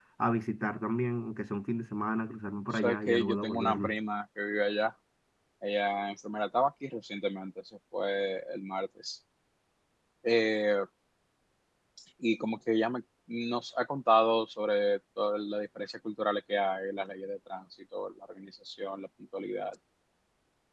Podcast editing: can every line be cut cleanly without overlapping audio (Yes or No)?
No